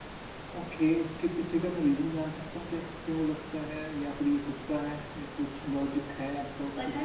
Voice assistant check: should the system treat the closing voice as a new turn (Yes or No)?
Yes